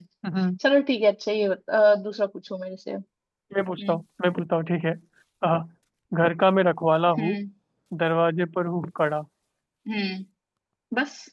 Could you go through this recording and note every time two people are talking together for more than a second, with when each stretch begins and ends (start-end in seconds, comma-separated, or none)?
none